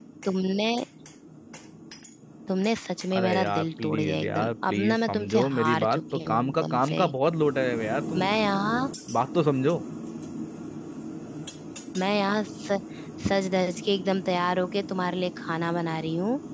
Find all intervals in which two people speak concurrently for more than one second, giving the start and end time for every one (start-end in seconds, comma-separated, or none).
3.2-7.1